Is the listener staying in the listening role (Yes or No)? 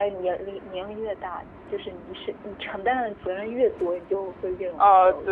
No